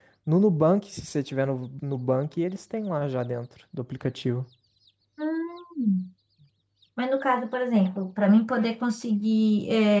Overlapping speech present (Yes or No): No